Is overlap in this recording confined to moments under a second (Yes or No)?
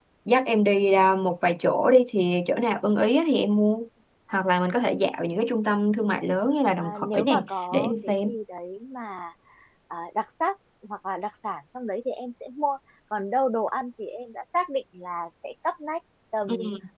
No